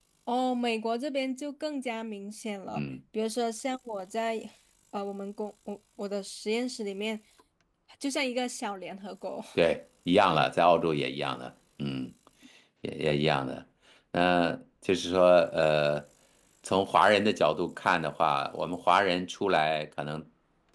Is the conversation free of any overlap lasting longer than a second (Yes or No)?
Yes